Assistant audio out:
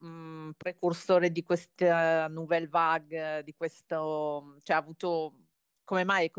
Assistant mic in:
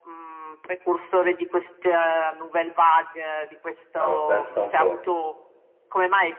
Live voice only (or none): Ah, ma pensa un po'.